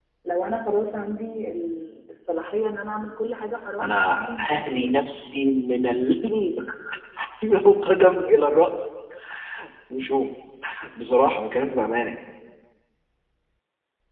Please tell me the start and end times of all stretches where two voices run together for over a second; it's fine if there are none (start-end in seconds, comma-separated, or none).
3.8-5.0